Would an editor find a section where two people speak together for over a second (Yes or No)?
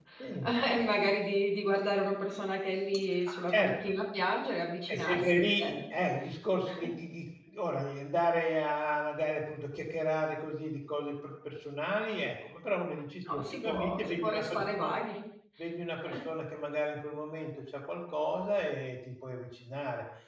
Yes